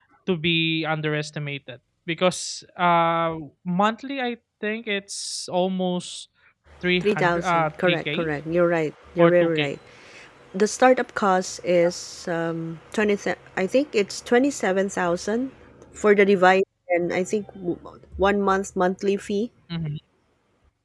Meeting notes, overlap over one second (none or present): present